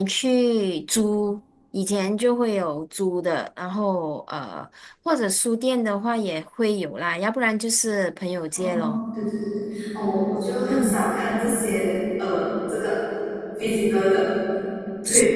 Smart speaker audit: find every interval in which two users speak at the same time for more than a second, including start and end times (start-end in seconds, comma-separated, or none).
none